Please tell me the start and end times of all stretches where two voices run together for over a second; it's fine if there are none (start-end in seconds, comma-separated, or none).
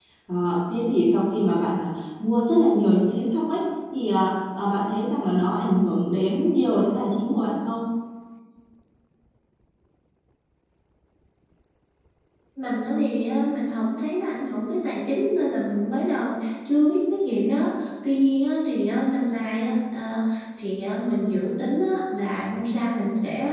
none